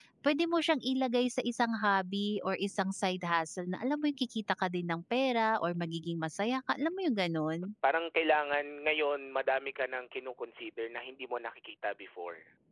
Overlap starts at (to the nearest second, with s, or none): none